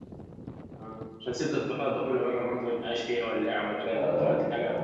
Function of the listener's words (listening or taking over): taking over